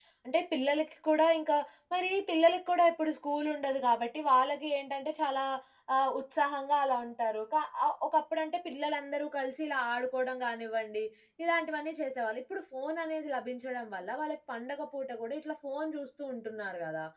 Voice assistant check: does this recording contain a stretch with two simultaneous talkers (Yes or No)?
No